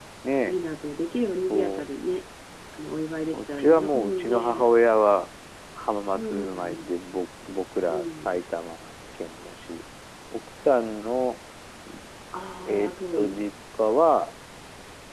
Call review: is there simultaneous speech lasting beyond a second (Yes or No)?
Yes